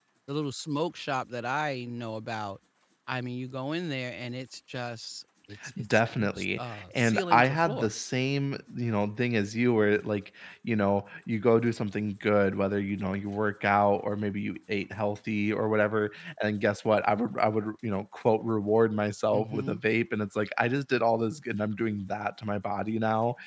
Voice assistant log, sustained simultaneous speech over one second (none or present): present